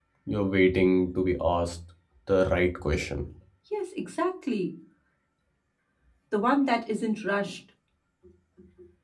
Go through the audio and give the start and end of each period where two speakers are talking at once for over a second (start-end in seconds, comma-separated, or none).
none